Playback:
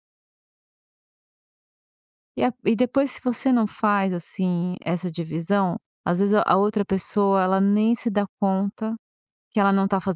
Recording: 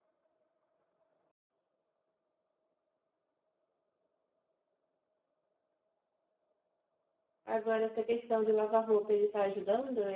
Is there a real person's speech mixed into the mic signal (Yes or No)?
Yes